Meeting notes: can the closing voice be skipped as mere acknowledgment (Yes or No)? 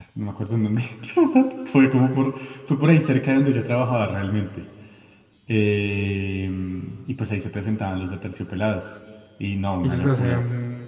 No